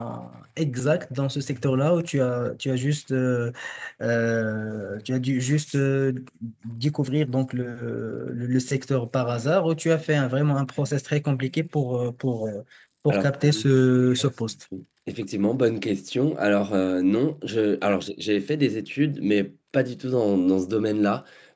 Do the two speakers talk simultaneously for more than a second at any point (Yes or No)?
No